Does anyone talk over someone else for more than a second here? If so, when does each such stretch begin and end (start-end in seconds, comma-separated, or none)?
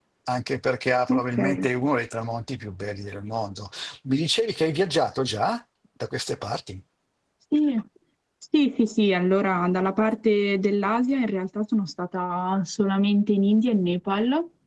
none